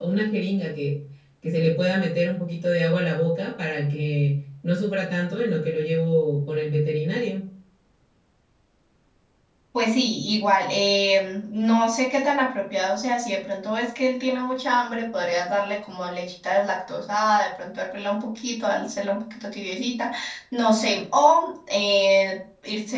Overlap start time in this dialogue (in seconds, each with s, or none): none